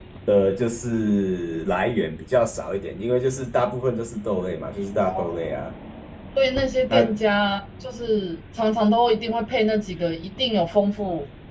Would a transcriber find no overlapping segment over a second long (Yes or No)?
Yes